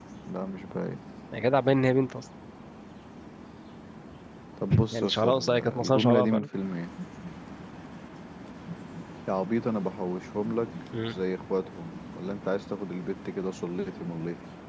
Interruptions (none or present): present